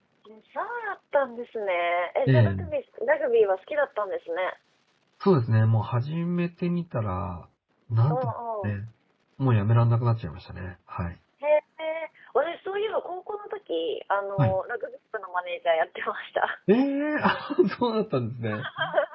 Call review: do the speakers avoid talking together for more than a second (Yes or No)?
Yes